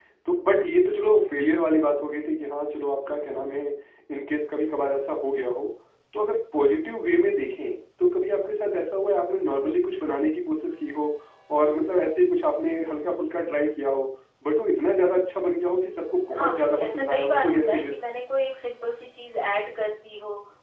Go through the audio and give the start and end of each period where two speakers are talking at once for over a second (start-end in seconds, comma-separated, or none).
16.3-17.9